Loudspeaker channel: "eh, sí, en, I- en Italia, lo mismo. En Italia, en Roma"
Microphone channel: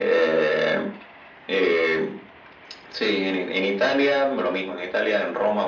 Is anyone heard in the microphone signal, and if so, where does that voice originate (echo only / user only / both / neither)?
echo only